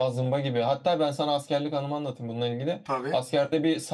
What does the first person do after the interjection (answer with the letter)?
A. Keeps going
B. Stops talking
A